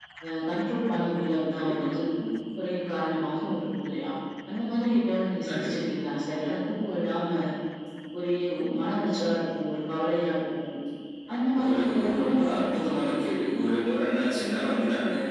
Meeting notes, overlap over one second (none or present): present